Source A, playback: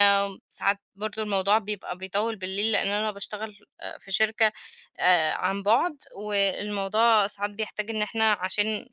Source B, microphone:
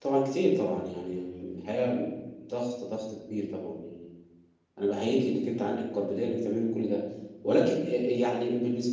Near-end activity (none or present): present